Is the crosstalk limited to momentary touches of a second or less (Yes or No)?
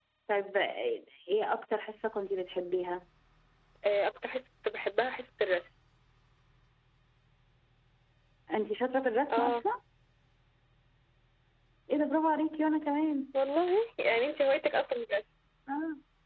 Yes